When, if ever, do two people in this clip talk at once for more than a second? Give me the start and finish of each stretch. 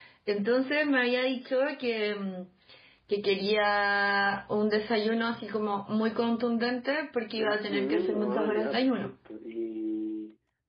7.4-9.1

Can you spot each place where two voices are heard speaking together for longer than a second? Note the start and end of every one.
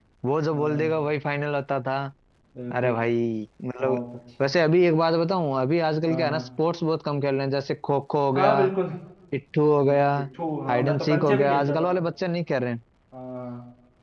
10.7-11.9

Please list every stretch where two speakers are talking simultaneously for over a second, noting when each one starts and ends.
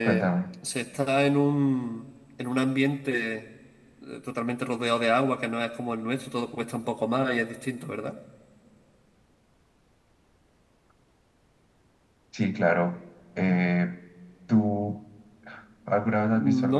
none

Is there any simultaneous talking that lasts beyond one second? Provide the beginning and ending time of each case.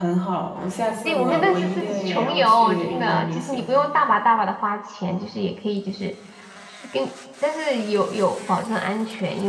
1.0-3.6

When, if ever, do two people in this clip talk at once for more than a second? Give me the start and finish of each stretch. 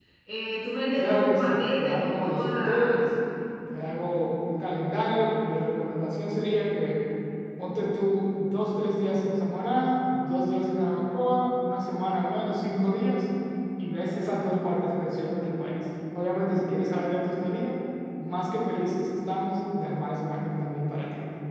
1.0-3.1

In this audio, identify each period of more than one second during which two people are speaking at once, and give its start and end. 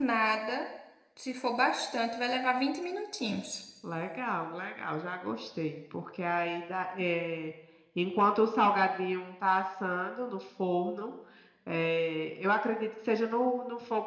none

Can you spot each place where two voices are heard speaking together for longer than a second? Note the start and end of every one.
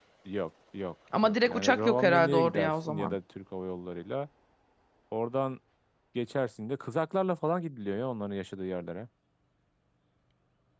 1.2-3.2

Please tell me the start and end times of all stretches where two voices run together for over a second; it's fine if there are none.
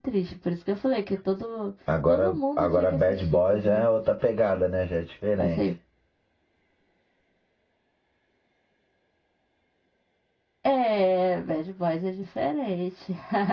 2.1-4.0

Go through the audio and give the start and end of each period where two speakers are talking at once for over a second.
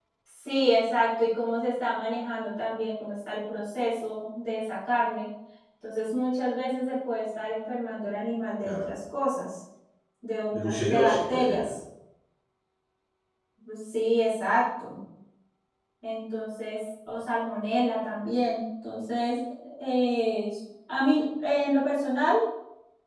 10.5-11.7

